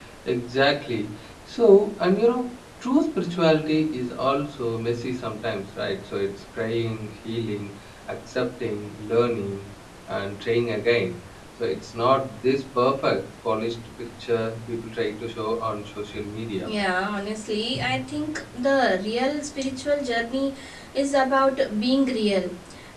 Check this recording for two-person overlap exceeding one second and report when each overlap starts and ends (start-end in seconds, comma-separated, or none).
none